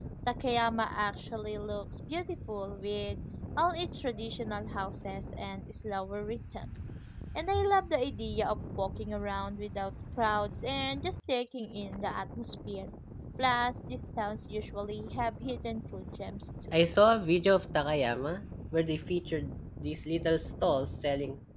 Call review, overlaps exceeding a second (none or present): none